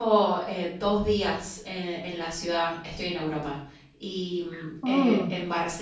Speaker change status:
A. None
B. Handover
A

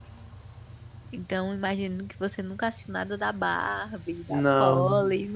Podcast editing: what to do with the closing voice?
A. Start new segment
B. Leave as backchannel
B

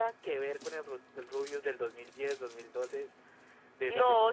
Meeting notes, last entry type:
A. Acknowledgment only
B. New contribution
B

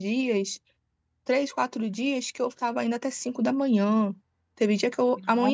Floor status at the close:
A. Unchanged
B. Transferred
A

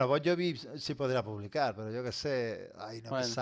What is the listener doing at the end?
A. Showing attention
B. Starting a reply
A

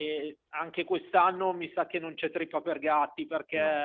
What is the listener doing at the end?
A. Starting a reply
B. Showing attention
B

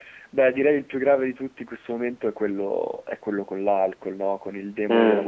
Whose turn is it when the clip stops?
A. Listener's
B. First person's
A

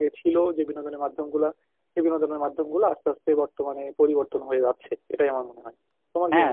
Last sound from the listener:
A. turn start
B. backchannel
A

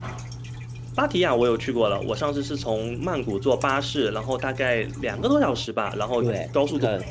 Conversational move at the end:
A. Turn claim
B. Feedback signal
A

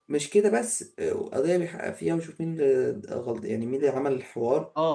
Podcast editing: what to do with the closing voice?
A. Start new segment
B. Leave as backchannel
A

